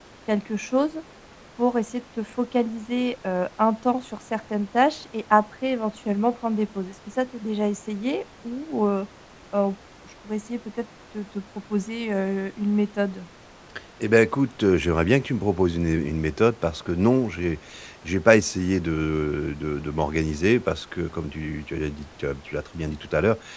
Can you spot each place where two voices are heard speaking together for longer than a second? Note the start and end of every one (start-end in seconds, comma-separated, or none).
none